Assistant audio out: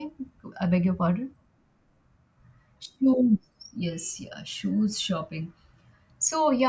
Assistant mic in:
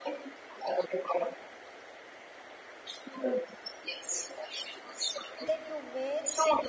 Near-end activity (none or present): present